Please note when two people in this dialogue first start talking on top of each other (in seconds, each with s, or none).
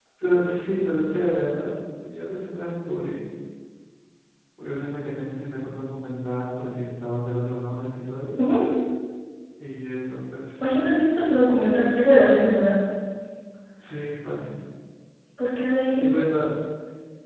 none